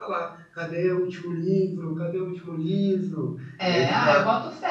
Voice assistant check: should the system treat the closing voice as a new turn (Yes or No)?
Yes